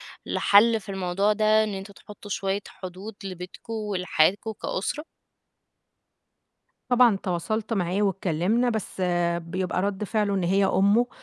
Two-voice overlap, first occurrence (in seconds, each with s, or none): none